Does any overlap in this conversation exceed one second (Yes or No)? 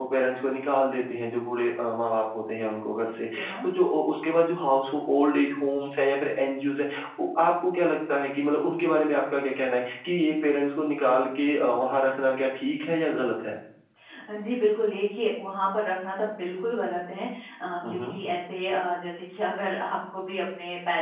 No